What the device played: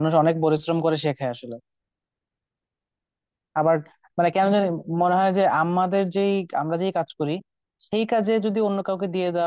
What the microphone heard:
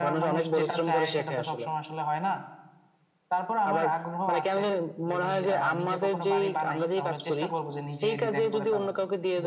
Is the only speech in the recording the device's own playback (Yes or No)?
No